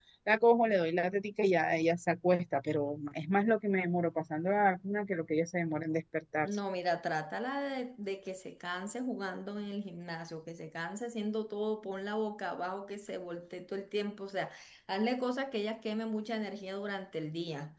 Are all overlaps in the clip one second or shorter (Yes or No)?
Yes